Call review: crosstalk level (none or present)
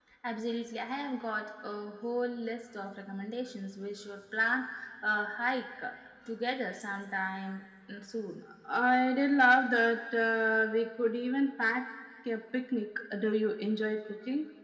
none